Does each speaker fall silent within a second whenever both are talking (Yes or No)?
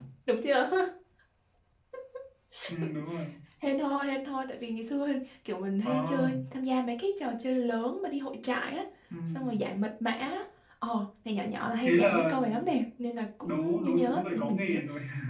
No